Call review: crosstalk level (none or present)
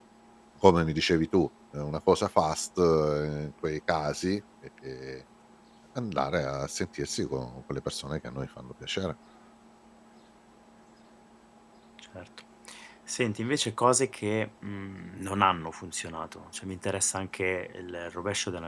none